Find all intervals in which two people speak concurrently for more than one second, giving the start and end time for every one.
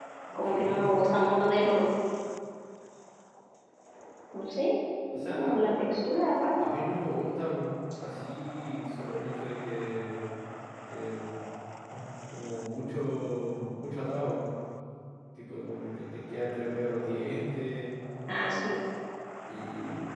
none

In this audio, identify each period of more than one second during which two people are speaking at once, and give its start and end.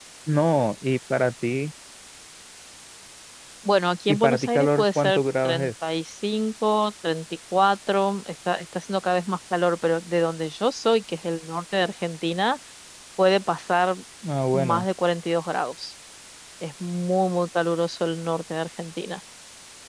4.1-5.7

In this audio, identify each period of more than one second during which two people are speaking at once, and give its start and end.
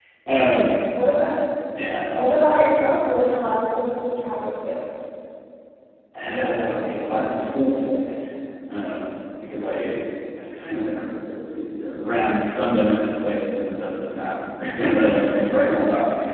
none

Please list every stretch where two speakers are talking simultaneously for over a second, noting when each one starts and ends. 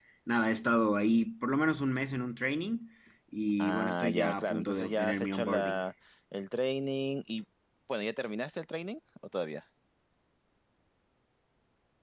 3.6-5.8

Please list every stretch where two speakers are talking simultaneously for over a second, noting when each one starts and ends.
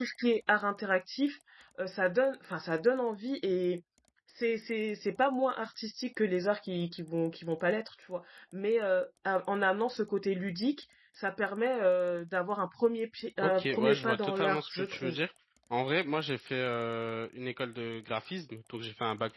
13.4-15.2

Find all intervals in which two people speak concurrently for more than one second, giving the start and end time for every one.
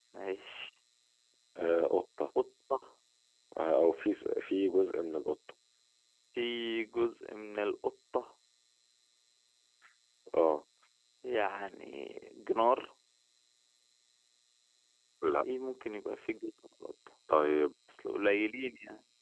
none

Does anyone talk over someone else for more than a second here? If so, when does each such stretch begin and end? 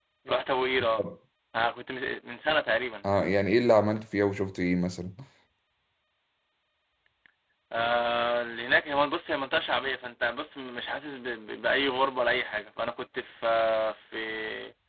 none

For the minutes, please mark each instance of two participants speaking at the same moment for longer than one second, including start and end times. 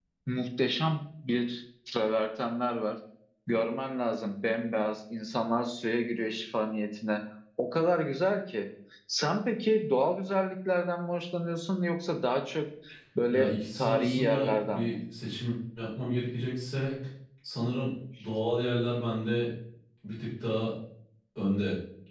13.3-15.0

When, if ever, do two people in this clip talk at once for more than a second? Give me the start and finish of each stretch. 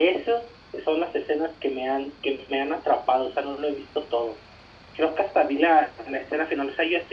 none

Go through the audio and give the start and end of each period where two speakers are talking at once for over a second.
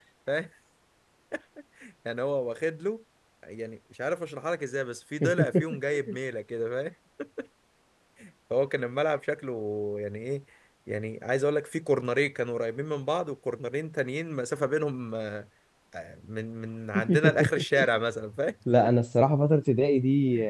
none

